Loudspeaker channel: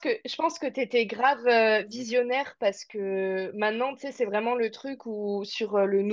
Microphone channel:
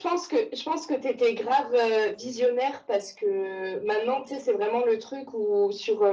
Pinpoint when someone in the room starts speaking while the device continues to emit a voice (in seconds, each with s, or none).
none